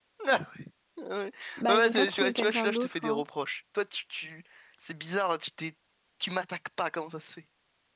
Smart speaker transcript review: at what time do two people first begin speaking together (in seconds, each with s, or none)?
1.7 s